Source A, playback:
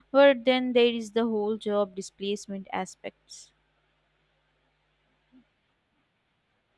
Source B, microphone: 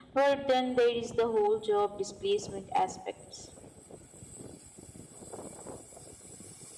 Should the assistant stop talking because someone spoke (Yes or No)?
No